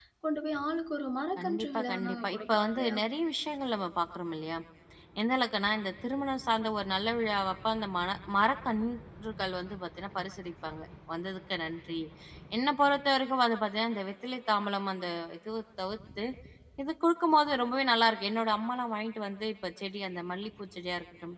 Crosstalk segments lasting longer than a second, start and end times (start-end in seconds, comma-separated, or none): 1.4-3.0